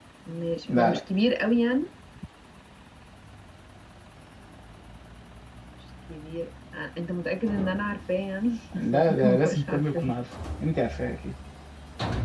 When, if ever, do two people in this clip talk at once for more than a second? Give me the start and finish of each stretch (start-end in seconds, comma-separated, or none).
8.7-10.1